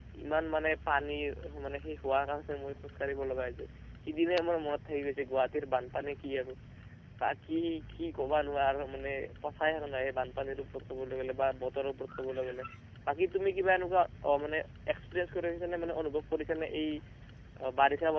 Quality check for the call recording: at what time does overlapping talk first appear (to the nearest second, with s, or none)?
none